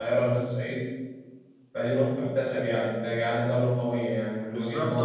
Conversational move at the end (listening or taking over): taking over